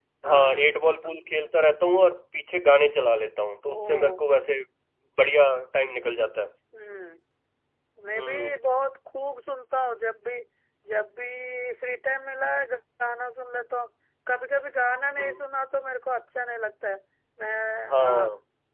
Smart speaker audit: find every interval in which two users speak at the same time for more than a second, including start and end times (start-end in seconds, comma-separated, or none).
none